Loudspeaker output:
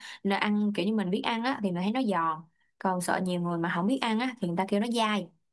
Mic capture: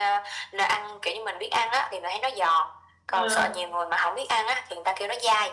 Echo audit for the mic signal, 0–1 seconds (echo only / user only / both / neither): echo only